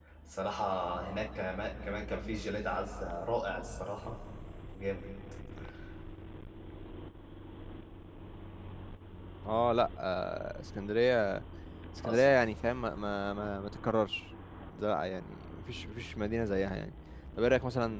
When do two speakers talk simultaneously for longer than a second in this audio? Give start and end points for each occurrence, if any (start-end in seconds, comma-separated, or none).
none